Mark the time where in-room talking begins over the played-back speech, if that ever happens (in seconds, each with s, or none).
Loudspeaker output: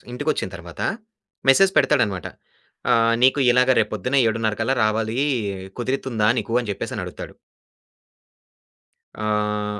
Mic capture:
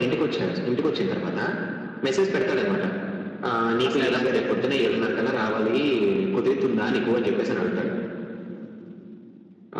3.9 s